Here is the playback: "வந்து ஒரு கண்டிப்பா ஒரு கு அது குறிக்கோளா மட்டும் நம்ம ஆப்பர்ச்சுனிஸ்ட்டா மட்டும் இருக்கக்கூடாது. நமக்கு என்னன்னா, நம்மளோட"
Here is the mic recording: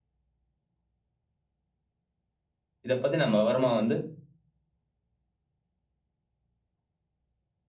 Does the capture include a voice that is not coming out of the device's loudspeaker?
Yes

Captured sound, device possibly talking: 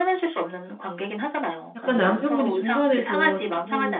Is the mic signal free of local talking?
No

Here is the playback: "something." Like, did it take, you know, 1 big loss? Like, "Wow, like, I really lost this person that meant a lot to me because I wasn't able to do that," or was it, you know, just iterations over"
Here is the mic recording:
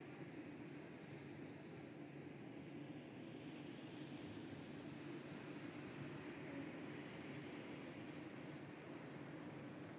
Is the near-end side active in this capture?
No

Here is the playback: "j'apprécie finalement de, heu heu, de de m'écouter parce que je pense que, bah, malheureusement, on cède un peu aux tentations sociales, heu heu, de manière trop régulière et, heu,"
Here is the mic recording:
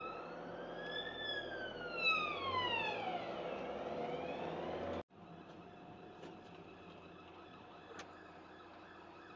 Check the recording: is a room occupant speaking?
No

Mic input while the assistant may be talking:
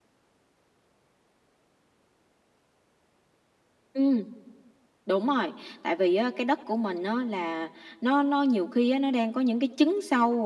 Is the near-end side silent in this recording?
Yes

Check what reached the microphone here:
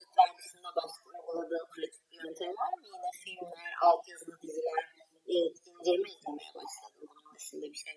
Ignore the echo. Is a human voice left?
No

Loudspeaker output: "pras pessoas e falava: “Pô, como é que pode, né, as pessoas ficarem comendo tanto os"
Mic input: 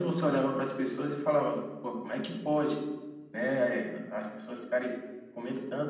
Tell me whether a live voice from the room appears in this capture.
No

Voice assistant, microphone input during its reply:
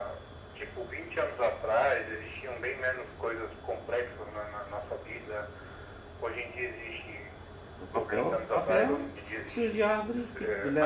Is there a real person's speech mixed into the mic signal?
Yes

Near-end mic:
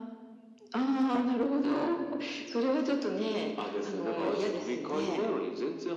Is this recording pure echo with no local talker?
Yes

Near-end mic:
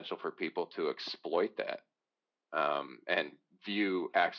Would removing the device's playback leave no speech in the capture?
Yes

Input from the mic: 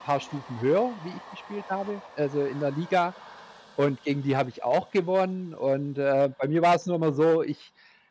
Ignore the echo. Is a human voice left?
Yes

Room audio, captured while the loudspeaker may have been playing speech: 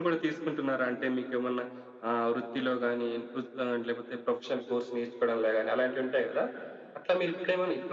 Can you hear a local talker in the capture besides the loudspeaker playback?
No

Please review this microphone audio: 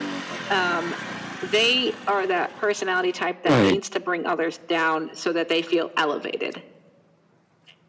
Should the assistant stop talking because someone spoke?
Yes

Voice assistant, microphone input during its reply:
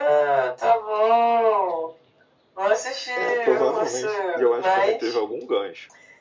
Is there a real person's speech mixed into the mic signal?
Yes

